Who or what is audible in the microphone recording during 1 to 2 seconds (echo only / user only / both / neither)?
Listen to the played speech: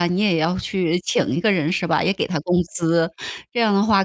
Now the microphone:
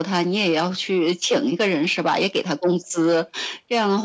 echo only